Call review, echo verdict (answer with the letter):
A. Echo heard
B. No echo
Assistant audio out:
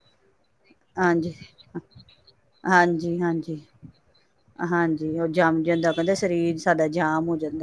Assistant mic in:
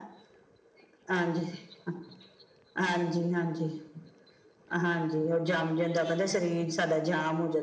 A